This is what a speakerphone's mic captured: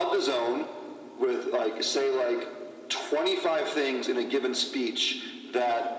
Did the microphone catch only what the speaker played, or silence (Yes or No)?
Yes